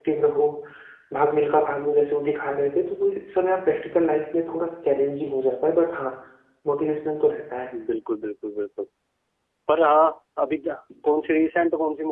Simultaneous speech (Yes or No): No